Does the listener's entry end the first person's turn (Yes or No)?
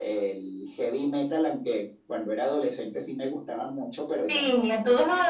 Yes